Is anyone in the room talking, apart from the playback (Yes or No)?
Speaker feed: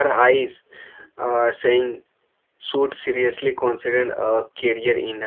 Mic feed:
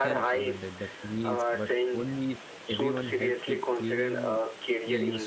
Yes